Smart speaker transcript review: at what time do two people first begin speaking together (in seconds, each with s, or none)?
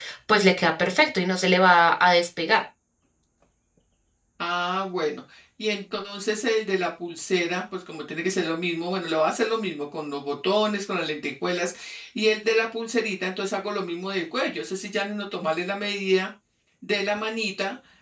none